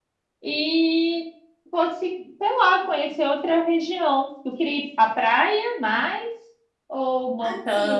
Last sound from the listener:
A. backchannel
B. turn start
B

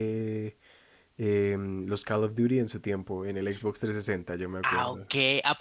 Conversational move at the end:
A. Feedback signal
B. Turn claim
B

